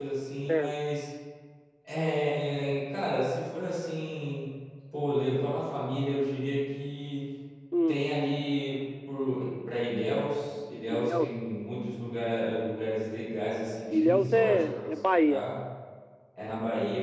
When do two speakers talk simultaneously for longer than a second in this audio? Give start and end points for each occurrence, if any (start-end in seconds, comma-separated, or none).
13.9-15.4